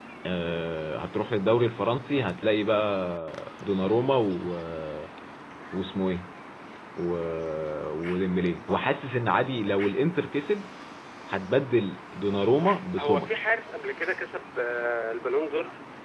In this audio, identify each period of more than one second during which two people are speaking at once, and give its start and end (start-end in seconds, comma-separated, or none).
none